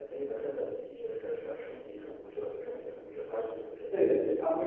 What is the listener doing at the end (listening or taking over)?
taking over